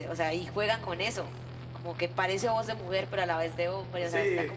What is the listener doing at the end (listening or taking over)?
taking over